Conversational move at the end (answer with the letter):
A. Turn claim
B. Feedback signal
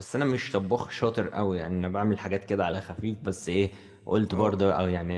B